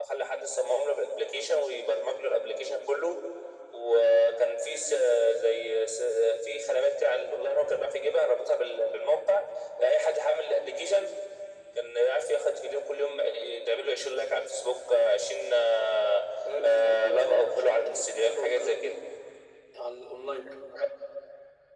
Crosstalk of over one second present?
Yes, from 16.6 s

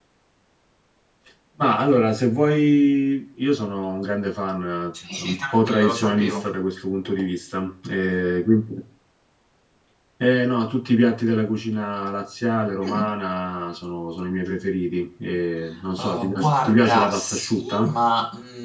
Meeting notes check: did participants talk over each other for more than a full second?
Yes, from 5.2 s

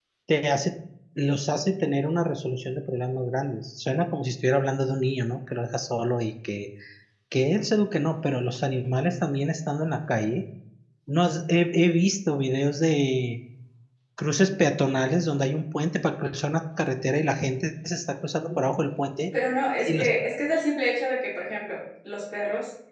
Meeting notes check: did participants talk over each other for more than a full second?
No

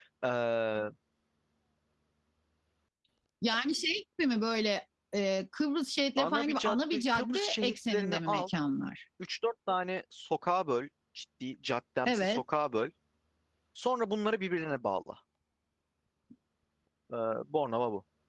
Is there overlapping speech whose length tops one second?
Yes, from 6.2 s

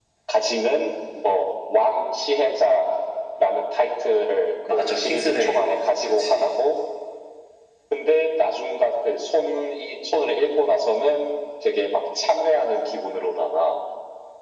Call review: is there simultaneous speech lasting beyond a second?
Yes, from 4.7 s

